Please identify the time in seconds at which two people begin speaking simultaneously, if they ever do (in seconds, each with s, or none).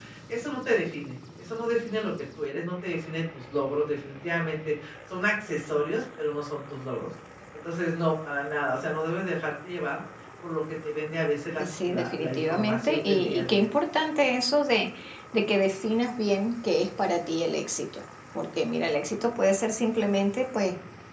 11.6 s